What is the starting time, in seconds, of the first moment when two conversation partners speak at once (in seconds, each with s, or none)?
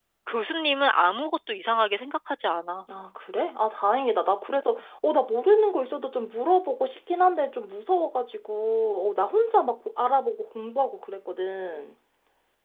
none